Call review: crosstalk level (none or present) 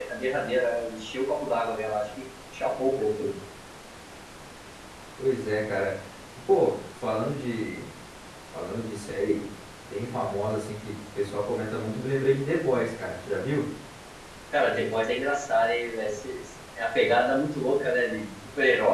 none